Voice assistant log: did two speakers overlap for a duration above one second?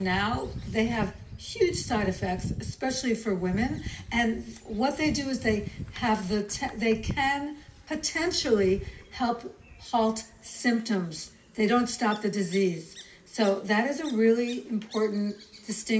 No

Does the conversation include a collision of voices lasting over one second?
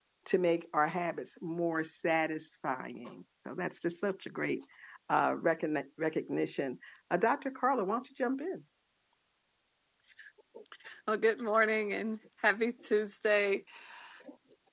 No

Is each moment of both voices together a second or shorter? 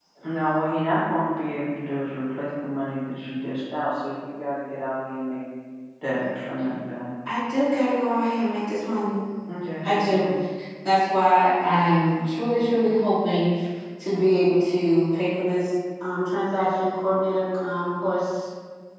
Yes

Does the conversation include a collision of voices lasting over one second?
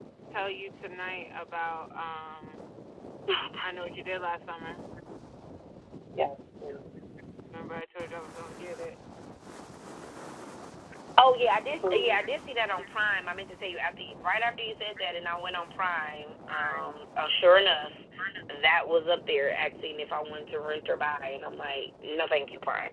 No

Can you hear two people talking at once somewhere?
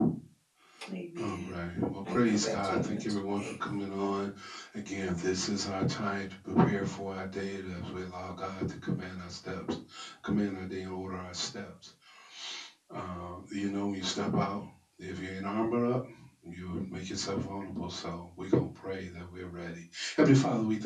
Yes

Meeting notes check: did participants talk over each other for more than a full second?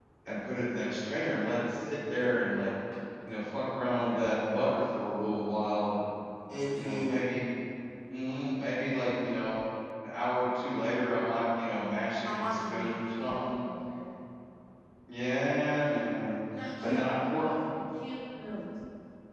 Yes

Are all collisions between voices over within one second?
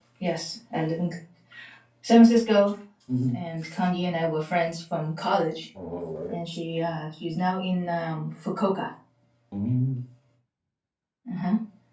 Yes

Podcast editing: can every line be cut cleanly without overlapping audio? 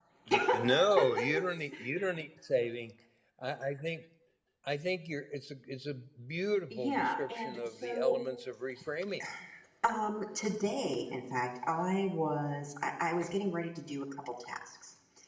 No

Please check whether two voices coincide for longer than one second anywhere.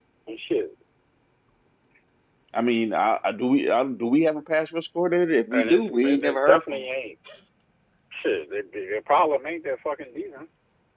Yes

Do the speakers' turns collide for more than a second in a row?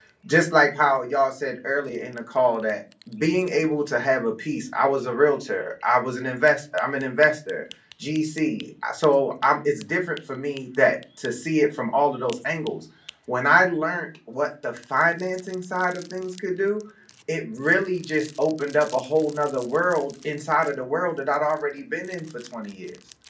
No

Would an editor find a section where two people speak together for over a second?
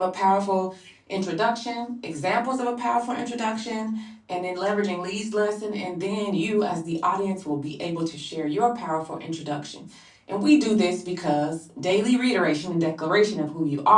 No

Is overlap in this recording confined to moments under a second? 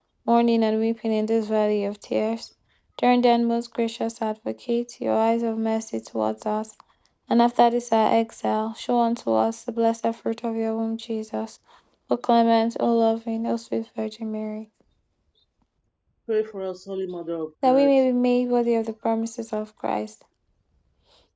Yes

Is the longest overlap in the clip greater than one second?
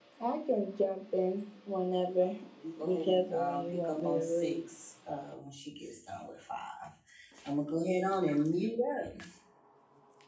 Yes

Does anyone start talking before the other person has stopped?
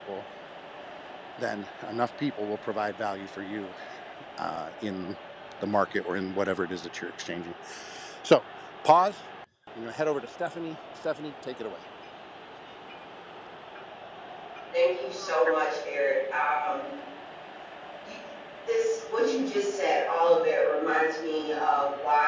No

